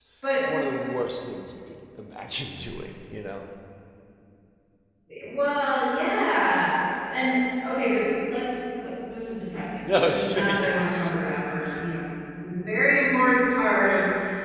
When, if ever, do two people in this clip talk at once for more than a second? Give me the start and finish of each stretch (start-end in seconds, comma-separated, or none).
9.8-11.2